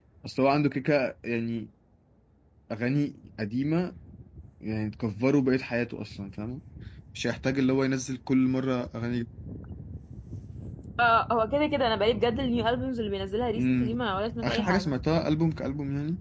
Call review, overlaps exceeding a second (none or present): none